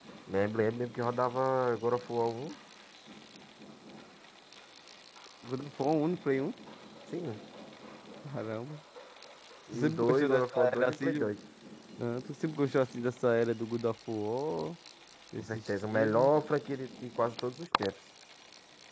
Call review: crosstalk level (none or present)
present